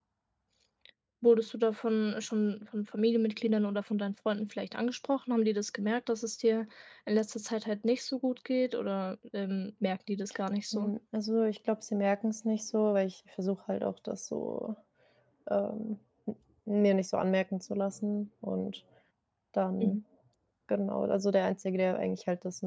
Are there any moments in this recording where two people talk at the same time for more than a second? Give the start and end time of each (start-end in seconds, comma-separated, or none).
none